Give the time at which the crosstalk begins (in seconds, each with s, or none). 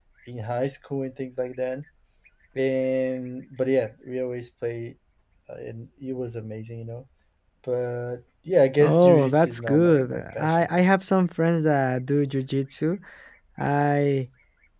8.8 s